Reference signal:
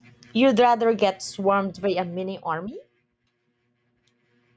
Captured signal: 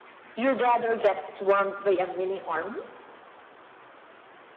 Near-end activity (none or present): none